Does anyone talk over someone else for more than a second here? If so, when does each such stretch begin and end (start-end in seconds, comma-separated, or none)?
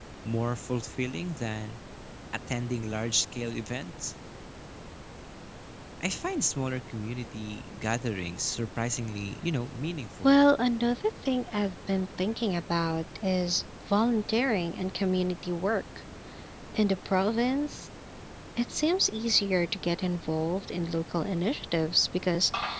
none